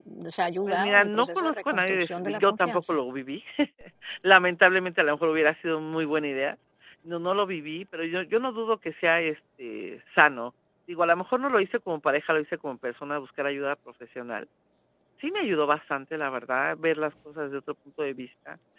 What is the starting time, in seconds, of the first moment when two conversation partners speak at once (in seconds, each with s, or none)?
0.7 s